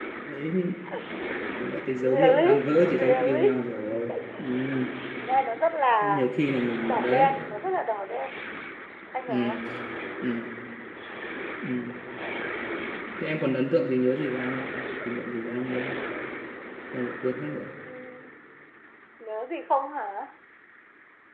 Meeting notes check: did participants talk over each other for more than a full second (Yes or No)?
Yes